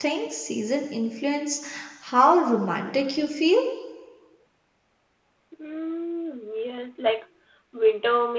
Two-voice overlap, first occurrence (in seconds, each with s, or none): none